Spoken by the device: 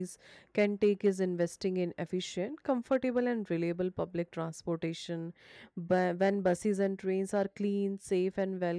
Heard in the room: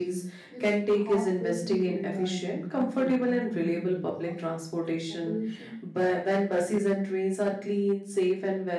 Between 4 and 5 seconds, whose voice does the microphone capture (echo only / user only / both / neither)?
both